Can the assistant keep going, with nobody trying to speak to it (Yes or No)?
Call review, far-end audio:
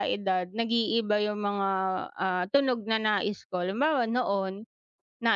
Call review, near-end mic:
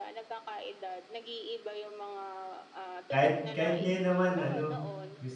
No